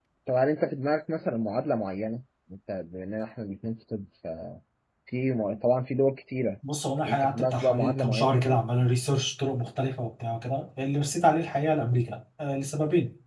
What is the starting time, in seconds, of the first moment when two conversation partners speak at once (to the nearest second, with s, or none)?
7 s